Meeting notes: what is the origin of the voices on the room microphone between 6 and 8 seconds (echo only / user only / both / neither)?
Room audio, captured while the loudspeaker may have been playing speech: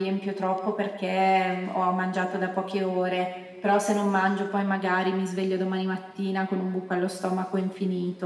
echo only